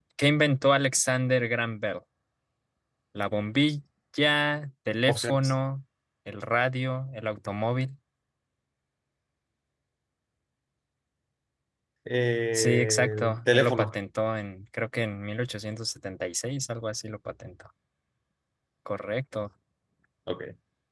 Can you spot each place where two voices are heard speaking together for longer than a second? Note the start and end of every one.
12.5-13.9

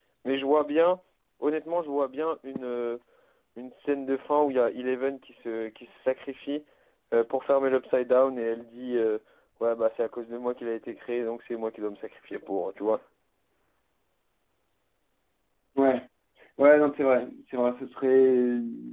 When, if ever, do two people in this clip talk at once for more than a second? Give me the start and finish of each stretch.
none

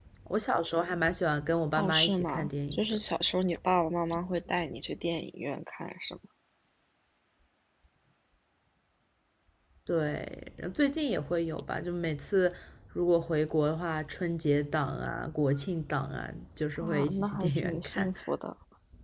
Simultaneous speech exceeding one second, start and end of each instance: 1.7-3.0, 16.8-18.1

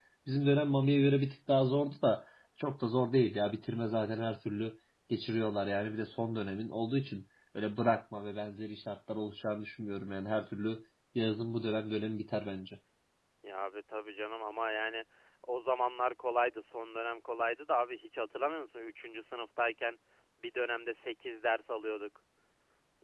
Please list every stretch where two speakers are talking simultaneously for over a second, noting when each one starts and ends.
none

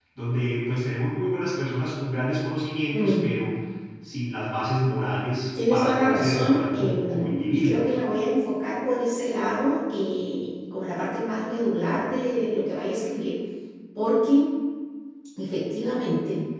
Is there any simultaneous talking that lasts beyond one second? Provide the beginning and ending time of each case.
5.7-7.9

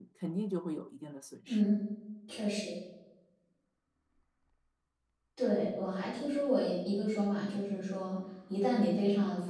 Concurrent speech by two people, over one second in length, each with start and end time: none

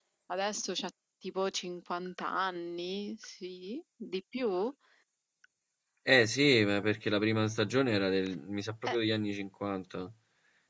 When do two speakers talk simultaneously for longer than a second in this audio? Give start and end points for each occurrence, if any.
none

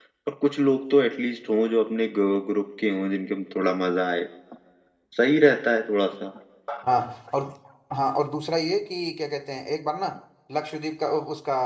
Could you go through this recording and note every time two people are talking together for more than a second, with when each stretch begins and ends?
none

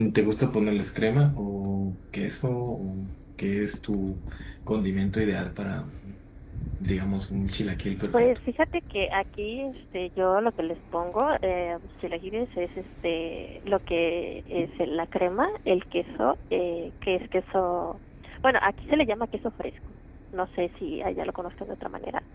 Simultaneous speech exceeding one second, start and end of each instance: none

